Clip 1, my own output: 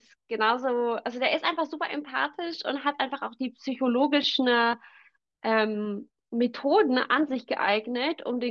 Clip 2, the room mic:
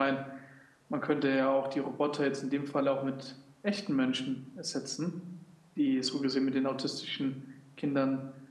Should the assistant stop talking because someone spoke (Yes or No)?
Yes